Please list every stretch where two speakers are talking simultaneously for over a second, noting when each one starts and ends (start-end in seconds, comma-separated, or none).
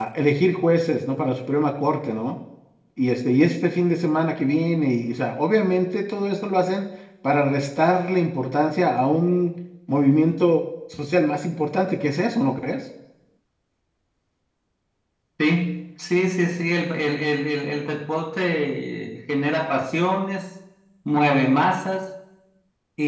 none